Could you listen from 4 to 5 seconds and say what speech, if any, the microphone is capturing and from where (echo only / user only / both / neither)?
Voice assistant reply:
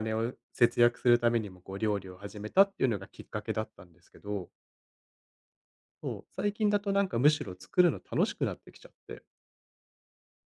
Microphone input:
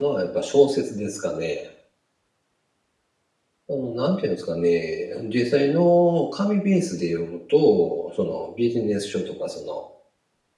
user only